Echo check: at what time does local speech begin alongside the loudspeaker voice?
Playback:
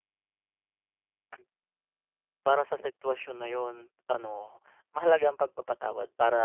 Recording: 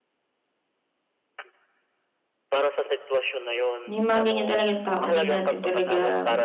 4 s

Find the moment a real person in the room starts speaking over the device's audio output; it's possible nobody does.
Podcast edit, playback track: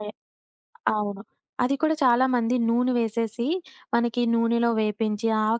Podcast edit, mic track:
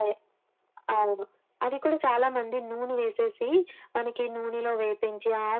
none

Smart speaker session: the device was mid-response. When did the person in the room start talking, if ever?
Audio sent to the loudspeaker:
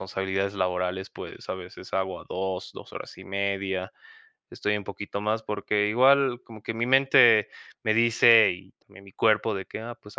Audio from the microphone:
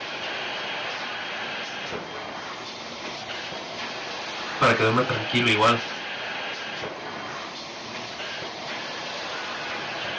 5 s

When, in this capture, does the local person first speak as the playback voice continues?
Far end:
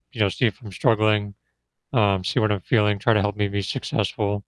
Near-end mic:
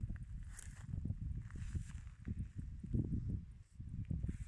none

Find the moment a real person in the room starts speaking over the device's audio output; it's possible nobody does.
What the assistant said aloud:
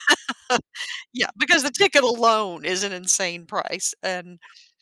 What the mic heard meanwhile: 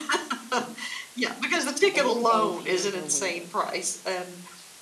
2 s

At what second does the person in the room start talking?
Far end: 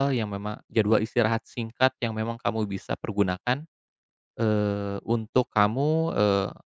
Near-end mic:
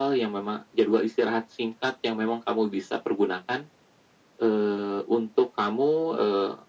none

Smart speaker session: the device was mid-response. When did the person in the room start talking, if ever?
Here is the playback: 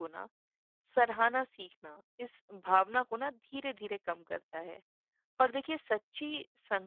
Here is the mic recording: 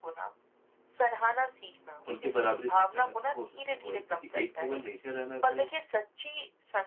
2 s

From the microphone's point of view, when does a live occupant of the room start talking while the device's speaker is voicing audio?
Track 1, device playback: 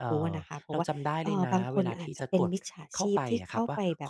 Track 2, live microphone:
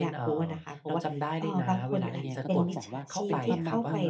2 s

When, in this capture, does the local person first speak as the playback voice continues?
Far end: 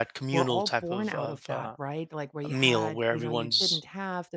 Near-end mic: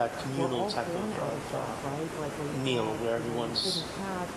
none

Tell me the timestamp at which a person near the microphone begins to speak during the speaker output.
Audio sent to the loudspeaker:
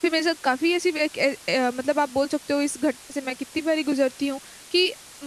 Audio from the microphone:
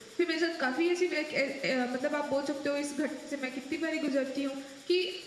none

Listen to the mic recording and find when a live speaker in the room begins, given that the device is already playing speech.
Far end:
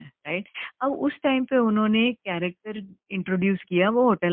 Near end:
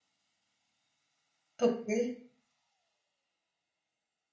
2 s

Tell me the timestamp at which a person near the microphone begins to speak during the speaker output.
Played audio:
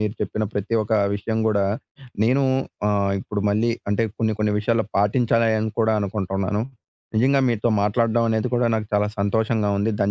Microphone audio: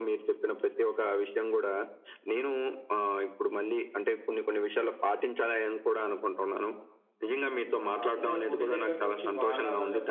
8 s

